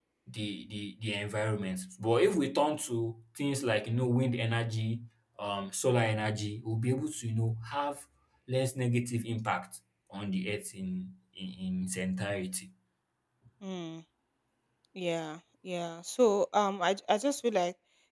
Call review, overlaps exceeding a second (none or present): none